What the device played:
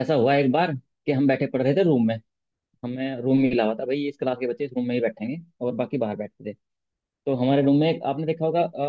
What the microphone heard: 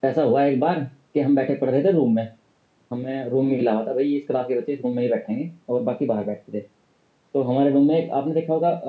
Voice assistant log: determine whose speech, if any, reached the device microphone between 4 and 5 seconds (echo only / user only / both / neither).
echo only